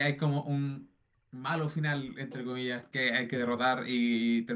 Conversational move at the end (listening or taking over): listening